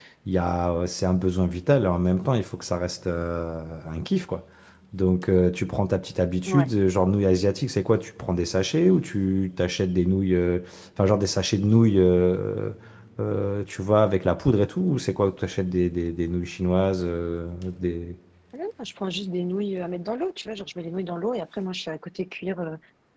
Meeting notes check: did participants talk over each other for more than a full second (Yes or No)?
No